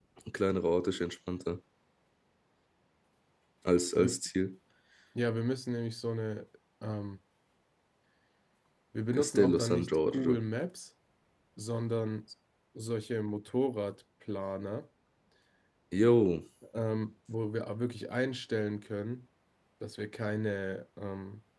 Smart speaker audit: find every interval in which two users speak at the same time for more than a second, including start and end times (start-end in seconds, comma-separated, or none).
9.1-10.4